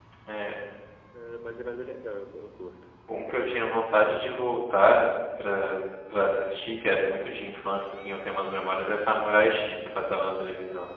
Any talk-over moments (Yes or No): No